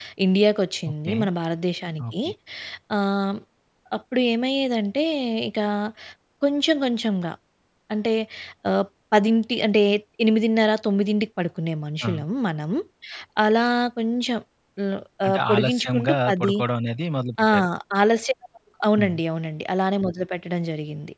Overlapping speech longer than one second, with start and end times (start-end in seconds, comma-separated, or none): 15.2-16.6